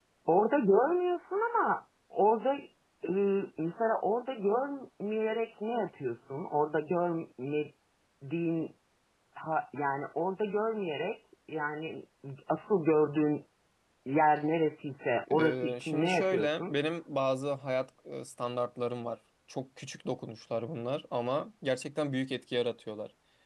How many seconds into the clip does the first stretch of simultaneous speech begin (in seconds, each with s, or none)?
15.3 s